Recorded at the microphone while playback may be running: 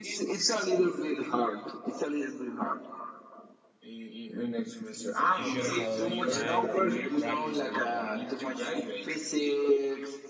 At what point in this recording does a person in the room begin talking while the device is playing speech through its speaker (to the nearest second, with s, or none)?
5 s